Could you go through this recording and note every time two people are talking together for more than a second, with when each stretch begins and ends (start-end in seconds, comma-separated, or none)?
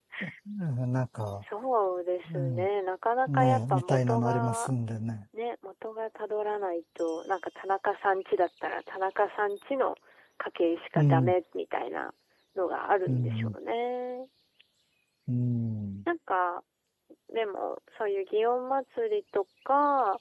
3.3-4.7